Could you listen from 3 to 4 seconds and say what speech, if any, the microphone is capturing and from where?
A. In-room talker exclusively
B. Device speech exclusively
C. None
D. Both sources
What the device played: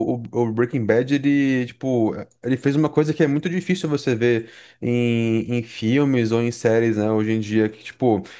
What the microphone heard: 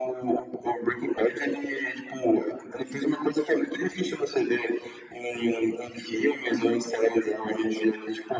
B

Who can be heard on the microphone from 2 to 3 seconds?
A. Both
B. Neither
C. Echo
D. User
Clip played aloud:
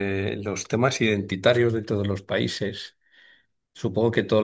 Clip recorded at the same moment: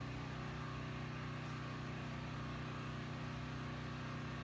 B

